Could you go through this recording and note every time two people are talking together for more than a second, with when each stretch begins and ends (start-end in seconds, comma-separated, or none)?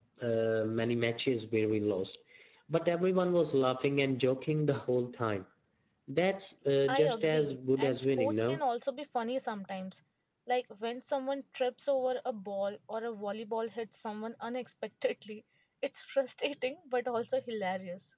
6.9-8.6